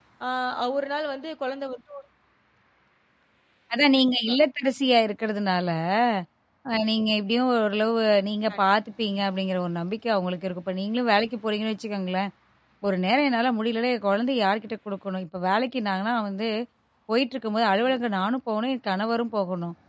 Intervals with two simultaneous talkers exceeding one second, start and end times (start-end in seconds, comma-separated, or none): none